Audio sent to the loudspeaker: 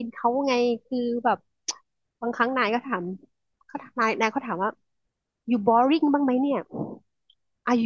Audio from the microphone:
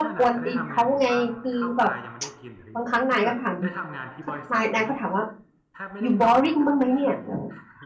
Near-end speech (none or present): present